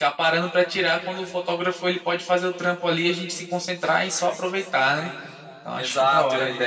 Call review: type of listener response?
taking over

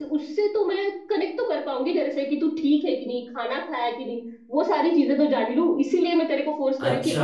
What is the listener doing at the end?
taking over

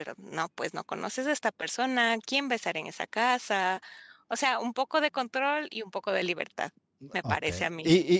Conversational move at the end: taking over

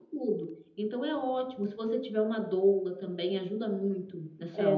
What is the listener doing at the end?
taking over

